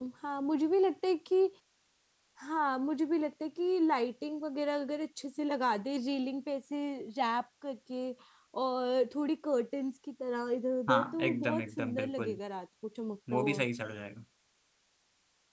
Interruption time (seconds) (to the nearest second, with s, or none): 11 s